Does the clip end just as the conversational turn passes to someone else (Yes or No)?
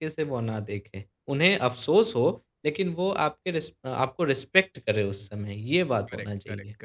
Yes